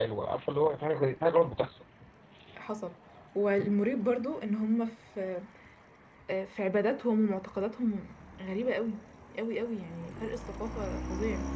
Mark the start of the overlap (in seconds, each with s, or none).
none